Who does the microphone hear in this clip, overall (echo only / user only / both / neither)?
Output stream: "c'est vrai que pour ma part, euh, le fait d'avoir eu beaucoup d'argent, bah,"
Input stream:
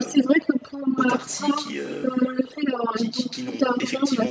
both